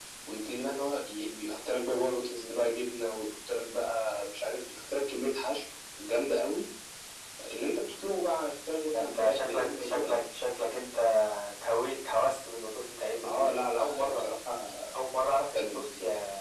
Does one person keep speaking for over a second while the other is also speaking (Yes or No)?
Yes